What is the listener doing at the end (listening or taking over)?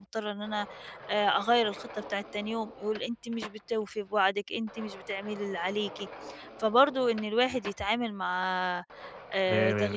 listening